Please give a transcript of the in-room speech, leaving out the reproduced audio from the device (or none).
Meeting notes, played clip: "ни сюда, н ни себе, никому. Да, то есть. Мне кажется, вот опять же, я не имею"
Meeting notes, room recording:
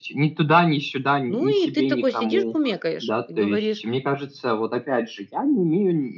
Ну, и ты такой сидишь, кумекаешь и говоришь: